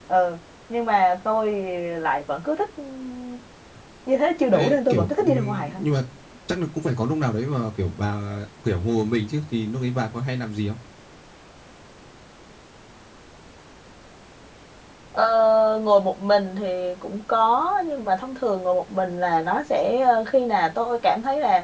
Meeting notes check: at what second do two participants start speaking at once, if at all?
4.5 s

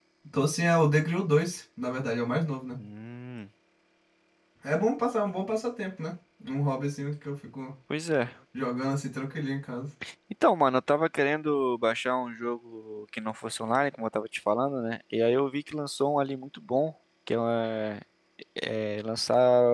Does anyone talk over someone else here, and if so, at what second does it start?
none

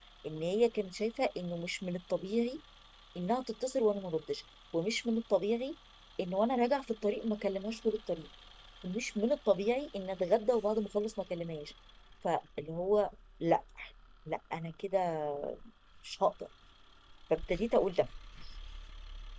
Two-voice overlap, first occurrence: none

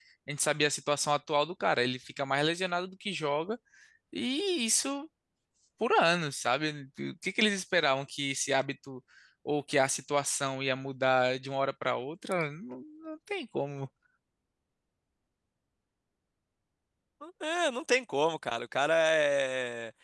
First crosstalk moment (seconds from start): none

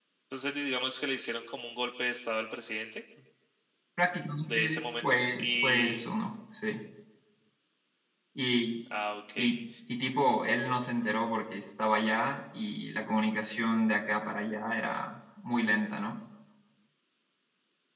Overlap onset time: 4.4 s

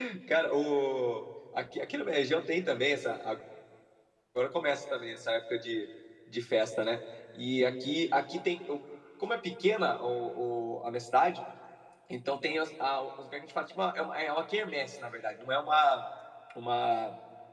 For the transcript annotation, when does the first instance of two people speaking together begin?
none

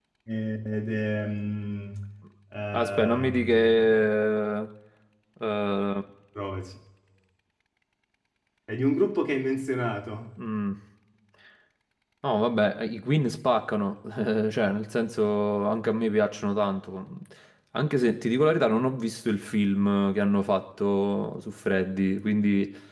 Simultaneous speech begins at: 2.7 s

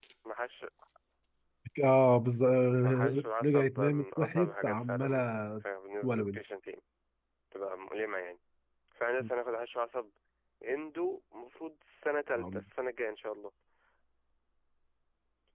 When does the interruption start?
2.8 s

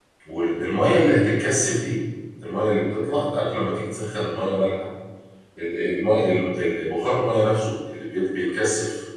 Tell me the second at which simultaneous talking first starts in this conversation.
none

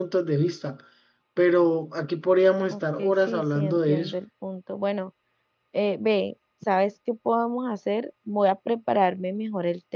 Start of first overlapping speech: 2.7 s

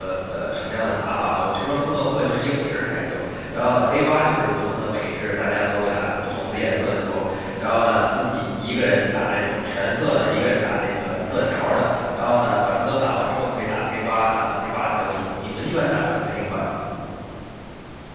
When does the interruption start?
none

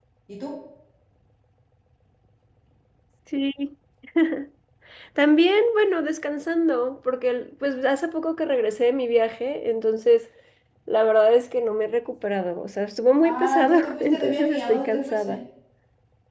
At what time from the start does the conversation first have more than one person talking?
13.2 s

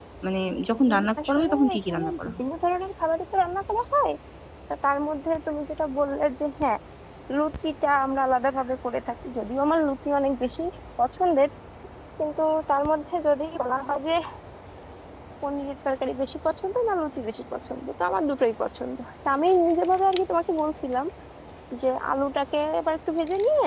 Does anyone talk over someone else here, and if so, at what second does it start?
0.9 s

